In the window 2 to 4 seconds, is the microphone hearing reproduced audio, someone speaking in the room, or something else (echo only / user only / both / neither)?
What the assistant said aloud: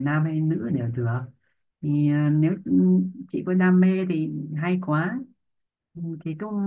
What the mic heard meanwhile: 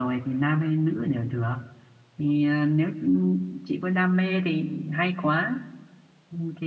echo only